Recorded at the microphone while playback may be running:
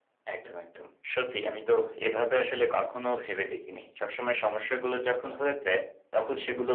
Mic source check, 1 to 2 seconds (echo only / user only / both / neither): echo only